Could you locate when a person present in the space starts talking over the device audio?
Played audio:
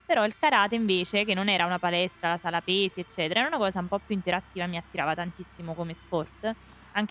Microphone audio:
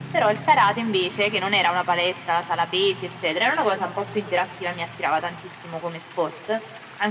none

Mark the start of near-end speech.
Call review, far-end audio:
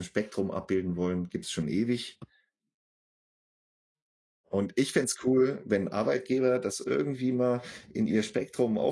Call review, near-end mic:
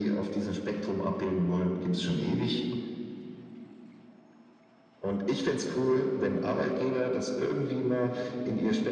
none

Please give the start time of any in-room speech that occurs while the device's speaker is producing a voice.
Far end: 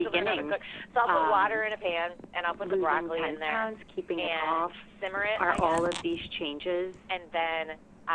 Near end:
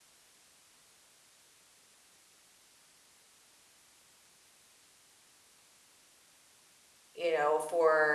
7.1 s

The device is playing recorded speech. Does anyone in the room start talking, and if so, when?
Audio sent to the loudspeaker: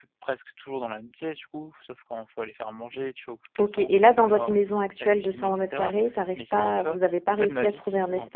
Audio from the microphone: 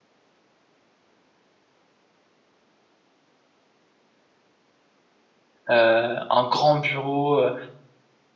5.7 s

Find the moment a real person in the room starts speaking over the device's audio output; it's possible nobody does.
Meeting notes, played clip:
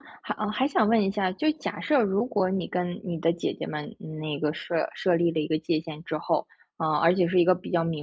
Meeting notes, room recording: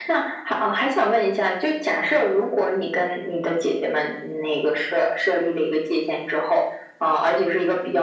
none

